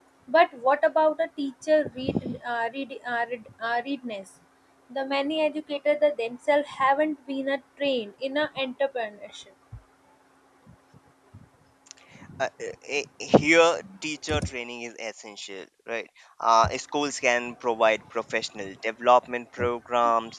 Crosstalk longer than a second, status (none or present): none